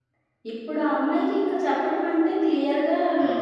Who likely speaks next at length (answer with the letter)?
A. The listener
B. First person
B